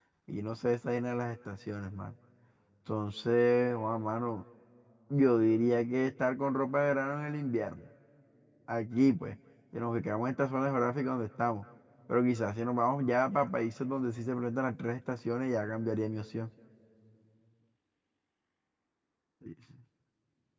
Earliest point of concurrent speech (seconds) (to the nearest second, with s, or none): none